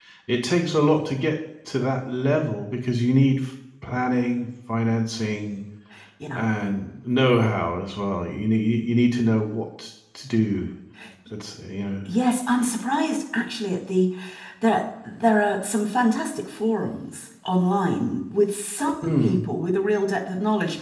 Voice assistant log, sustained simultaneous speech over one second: none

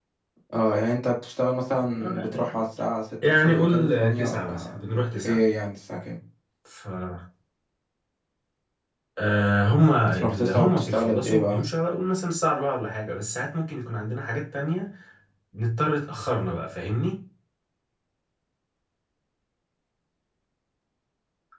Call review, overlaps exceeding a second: present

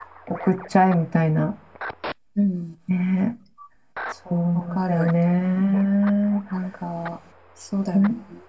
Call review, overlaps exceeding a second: none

